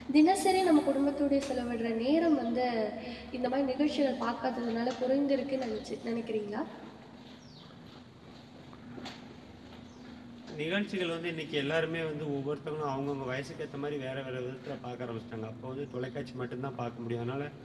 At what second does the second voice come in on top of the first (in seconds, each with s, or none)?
none